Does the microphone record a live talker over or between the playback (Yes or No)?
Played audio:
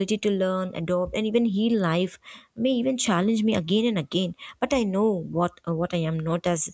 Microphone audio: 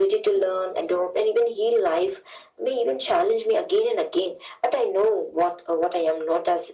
No